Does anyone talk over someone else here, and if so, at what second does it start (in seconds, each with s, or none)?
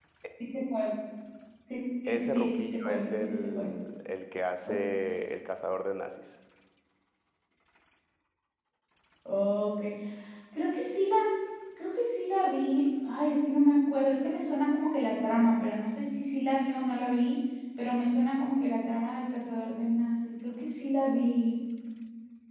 2.1 s